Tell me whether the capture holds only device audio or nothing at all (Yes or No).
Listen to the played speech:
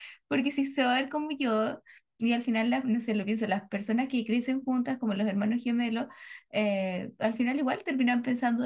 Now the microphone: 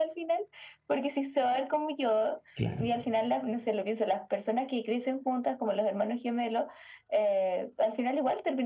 No